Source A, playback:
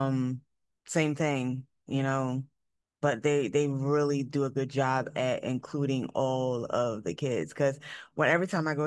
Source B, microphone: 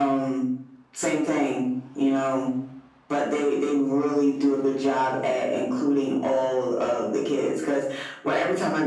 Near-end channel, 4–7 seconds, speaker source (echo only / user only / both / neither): echo only